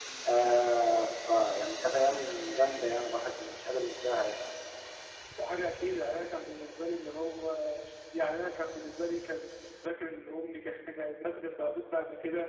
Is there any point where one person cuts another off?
No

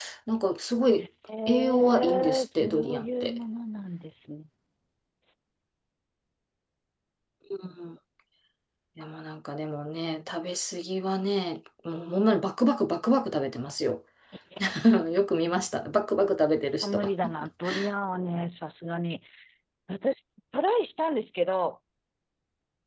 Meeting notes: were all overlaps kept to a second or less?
No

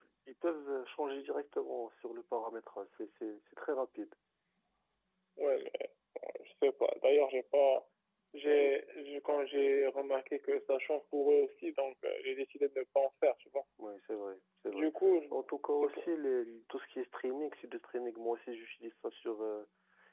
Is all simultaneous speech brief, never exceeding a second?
Yes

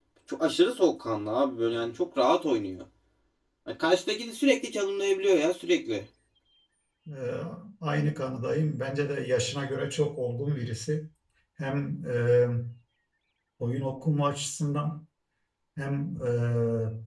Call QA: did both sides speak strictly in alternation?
Yes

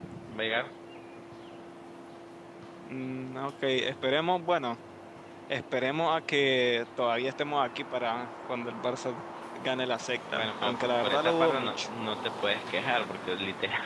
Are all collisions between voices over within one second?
No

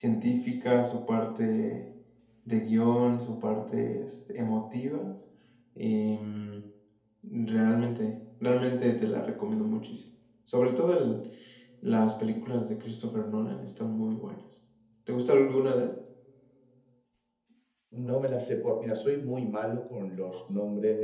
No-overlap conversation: Yes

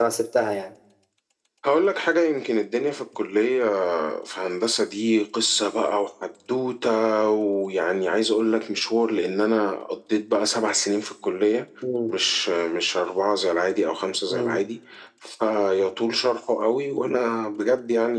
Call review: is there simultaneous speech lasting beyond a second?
No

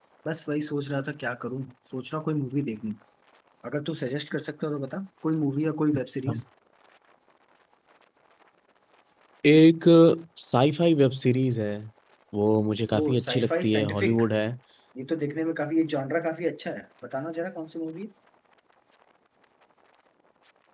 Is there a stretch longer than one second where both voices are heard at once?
Yes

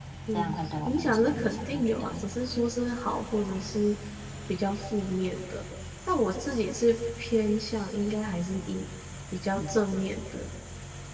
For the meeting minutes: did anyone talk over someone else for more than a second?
Yes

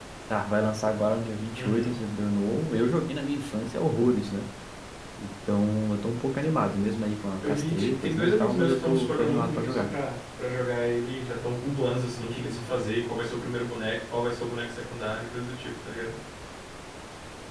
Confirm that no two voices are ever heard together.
No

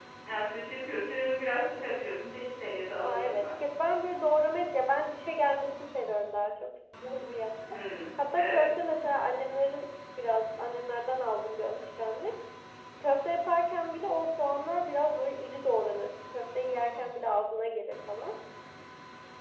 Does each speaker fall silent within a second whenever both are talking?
Yes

